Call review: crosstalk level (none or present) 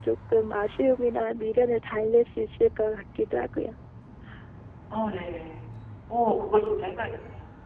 none